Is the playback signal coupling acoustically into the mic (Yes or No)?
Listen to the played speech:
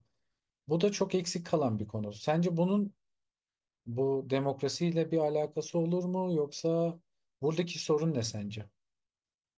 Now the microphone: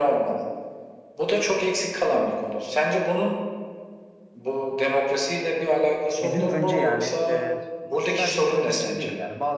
Yes